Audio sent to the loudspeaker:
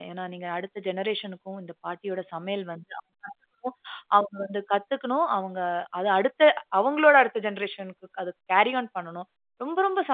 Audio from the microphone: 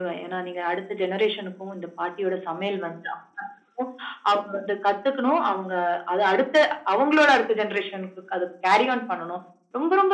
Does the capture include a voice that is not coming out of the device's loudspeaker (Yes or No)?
No